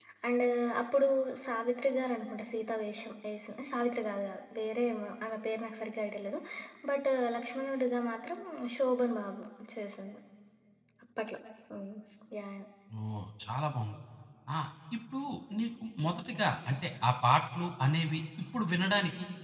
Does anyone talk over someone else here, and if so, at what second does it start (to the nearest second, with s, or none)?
none